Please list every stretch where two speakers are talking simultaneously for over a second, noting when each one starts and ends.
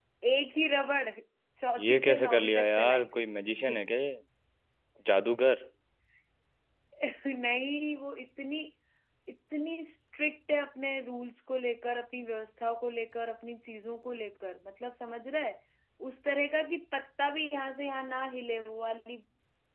1.8-3.2

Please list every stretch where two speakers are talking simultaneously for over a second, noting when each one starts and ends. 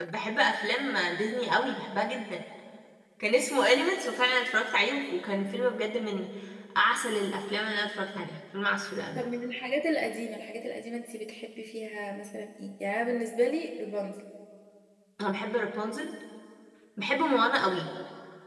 none

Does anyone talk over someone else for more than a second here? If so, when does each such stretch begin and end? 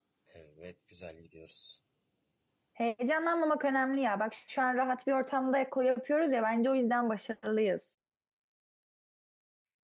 none

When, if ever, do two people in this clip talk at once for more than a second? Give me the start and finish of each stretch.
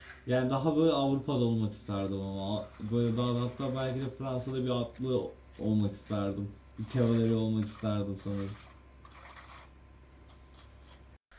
none

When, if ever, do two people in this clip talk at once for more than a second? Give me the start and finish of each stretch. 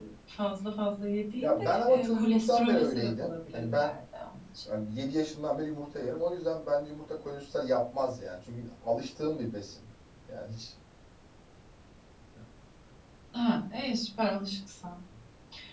1.4-3.9

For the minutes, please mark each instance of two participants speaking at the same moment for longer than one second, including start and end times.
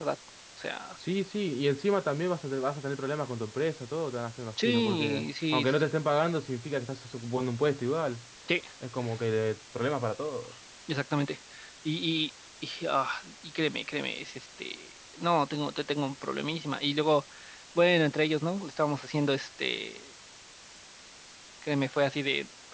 4.7-5.9

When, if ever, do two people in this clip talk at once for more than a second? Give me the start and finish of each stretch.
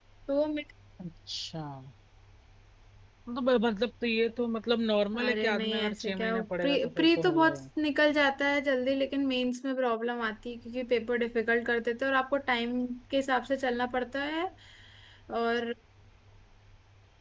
5.2-7.6

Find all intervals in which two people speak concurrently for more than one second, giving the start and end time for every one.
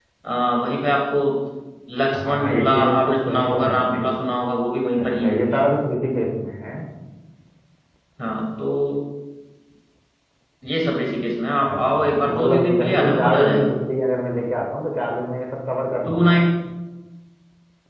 2.2-4.0, 11.7-13.7

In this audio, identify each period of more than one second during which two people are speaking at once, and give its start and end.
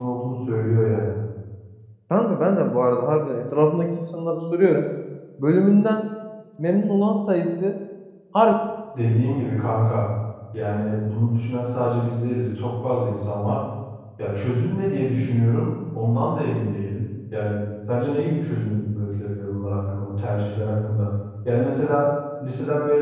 none

